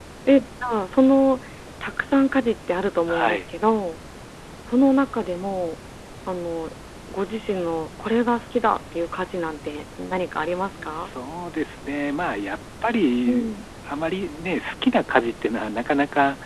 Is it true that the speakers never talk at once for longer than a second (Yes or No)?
Yes